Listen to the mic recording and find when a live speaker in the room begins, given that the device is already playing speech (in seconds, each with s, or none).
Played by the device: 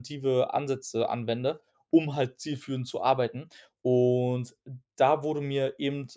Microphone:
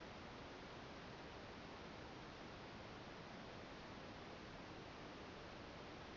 none